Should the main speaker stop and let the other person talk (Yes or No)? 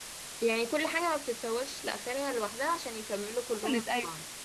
Yes